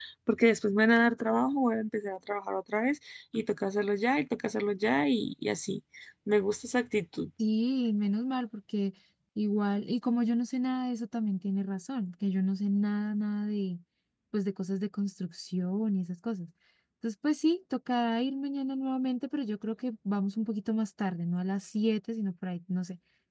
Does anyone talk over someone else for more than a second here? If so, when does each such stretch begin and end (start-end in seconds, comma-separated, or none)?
none